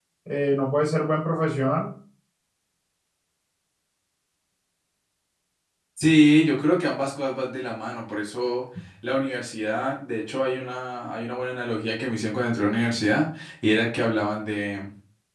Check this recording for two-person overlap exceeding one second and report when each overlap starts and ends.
none

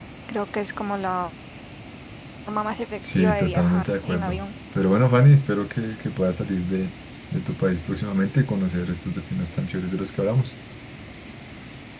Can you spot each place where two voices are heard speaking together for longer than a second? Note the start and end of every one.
3.0-4.5

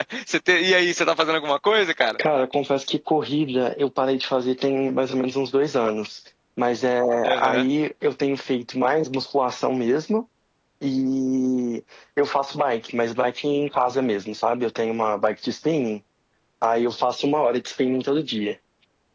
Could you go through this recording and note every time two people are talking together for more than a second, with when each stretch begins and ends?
none

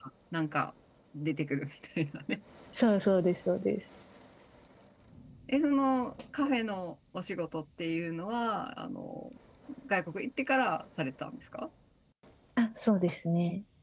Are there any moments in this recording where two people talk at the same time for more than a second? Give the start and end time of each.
none

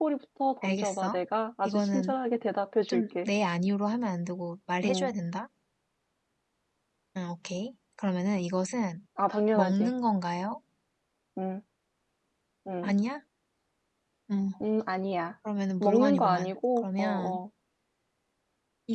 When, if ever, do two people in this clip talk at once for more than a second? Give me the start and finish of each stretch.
15.8-17.4

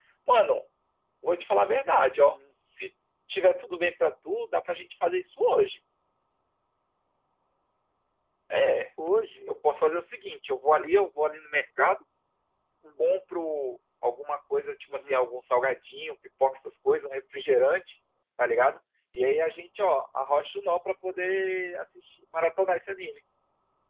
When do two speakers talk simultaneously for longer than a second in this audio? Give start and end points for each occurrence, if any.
none

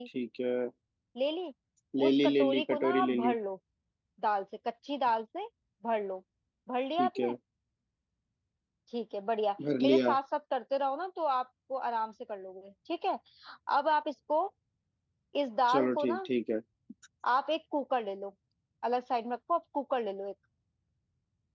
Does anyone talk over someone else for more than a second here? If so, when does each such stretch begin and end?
2.1-3.4

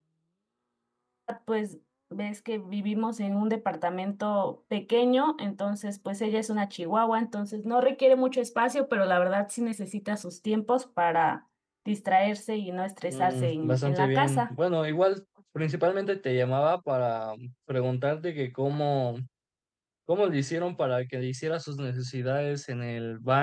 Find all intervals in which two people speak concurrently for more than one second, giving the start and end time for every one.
13.1-14.5

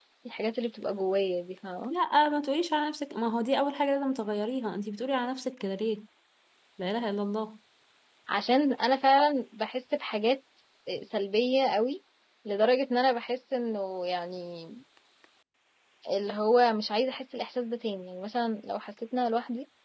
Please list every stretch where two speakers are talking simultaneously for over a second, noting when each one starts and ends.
none

